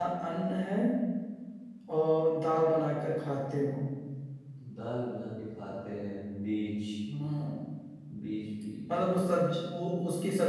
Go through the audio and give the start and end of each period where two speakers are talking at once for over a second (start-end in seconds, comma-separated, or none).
none